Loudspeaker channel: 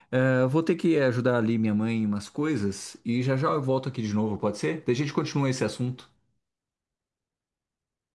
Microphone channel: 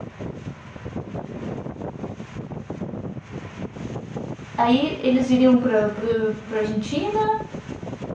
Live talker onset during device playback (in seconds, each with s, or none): 4.6 s